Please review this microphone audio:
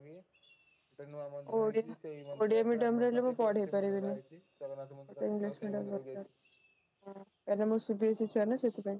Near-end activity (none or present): present